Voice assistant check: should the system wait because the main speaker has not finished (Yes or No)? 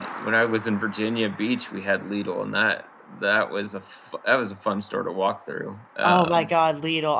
No